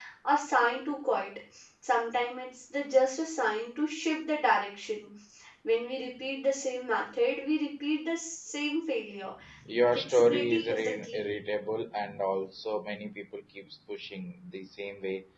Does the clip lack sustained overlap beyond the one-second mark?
No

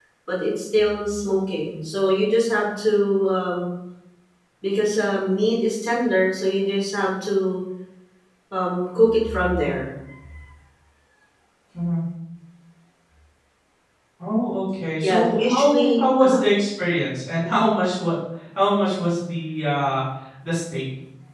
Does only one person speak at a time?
No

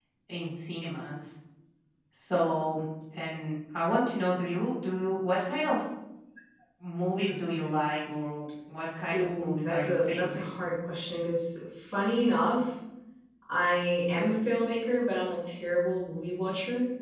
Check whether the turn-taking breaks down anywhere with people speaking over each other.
Yes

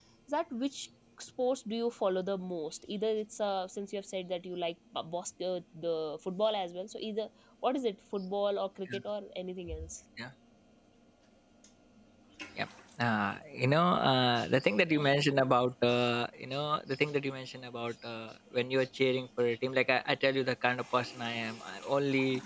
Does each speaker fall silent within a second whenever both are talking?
Yes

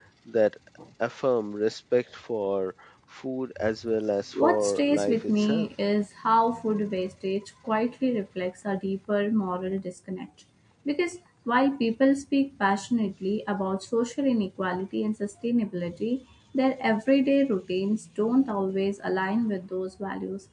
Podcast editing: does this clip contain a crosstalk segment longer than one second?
Yes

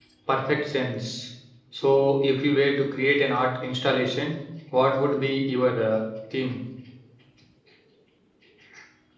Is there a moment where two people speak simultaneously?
No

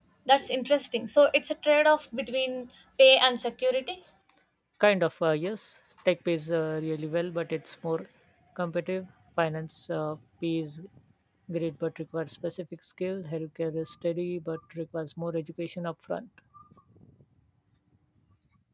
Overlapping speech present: No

